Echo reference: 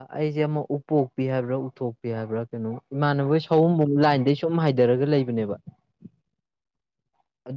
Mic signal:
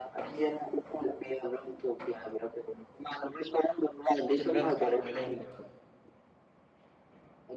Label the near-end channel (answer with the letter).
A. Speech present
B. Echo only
A